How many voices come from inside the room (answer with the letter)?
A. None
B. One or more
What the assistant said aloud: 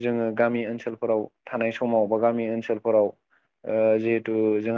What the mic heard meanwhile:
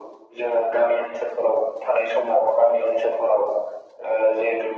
A